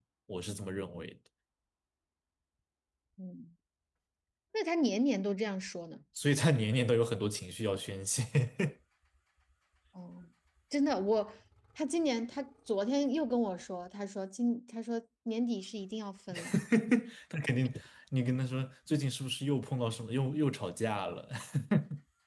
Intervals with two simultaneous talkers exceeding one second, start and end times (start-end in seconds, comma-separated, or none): none